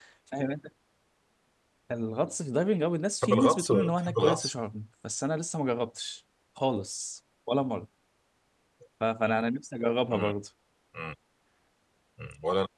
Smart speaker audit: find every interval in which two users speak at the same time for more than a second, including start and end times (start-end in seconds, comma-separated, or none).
3.2-4.5